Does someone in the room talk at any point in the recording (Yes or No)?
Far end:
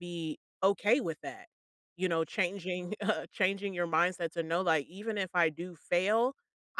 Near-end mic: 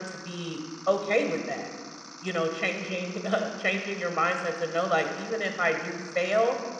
No